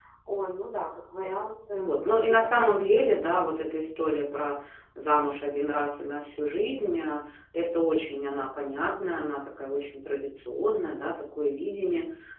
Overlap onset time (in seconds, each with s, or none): 1.7 s